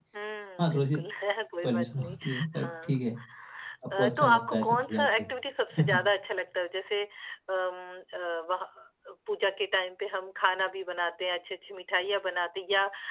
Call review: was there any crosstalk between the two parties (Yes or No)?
Yes